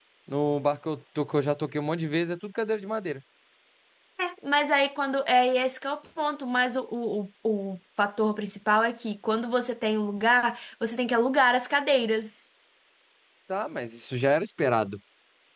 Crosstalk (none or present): none